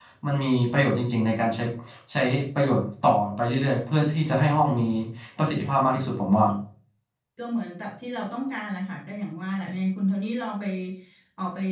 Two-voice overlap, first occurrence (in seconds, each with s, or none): none